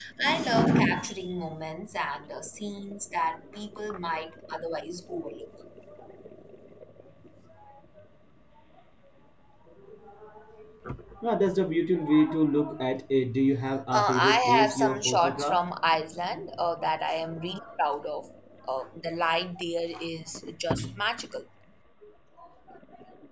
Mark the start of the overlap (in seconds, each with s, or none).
13.9 s